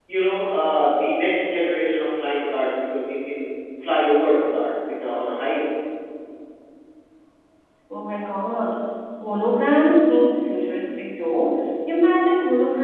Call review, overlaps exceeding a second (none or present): none